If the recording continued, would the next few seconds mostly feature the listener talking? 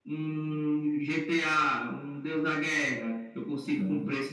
No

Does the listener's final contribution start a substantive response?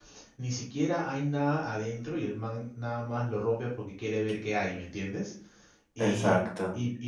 No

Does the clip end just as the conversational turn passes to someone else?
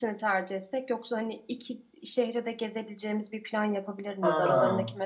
No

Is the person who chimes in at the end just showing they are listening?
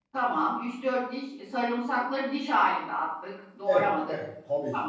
No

